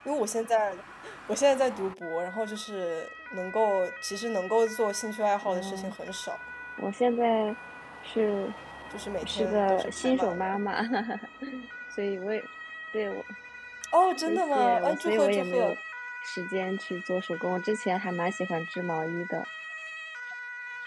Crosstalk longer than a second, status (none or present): present